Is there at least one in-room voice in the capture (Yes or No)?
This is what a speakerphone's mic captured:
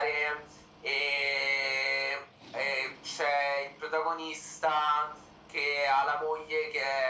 No